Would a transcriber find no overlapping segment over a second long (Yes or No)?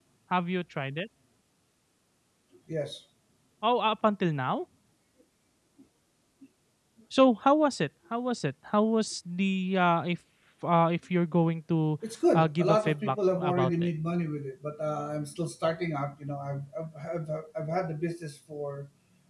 No